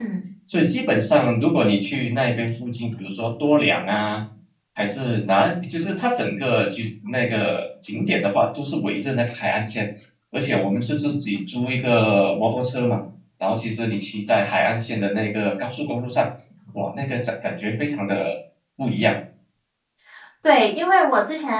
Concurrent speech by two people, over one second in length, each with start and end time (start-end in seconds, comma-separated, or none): none